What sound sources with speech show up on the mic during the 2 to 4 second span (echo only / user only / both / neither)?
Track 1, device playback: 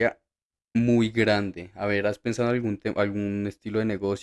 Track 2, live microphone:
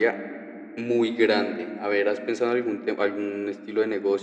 echo only